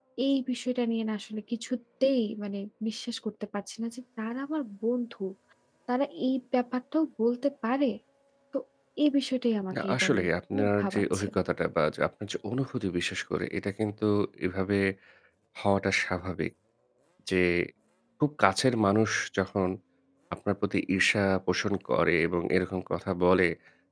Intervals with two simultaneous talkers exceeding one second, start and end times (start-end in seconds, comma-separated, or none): 9.7-11.3